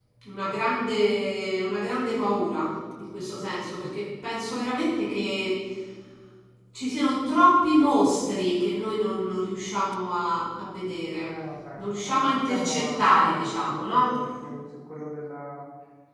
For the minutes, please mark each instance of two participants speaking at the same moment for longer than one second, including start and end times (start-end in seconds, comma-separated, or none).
11.8-14.1